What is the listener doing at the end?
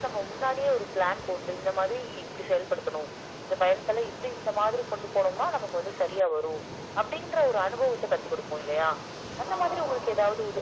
listening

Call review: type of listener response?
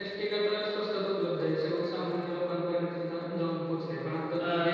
listening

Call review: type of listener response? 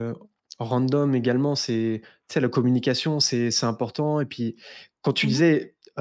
listening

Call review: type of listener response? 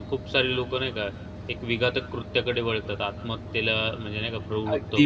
taking over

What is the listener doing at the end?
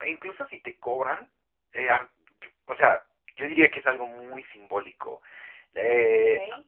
taking over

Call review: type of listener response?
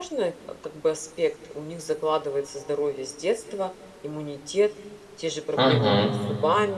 listening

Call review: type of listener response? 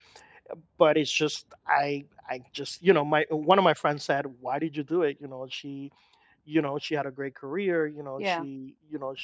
listening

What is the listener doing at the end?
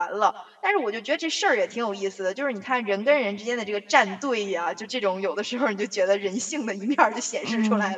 taking over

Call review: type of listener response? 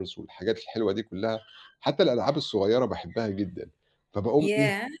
listening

